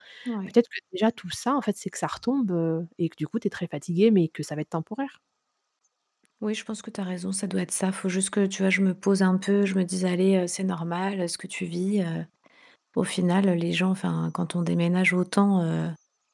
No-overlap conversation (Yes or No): Yes